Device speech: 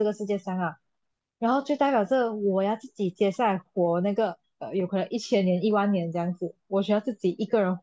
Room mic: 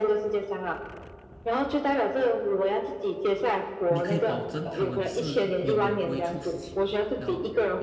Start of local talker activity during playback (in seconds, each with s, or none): 3.9 s